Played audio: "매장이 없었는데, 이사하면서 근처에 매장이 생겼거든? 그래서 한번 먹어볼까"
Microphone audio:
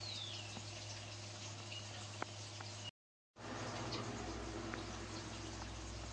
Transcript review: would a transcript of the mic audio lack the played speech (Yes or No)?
Yes